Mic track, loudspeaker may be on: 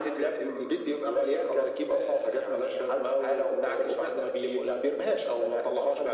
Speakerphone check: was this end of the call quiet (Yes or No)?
Yes